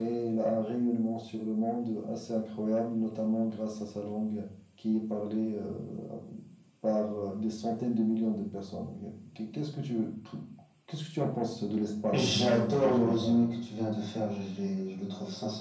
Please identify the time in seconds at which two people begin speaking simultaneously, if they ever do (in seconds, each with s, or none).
12.1 s